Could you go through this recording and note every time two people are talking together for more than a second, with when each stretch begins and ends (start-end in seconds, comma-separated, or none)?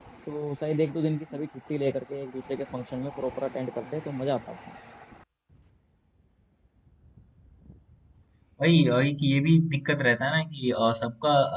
none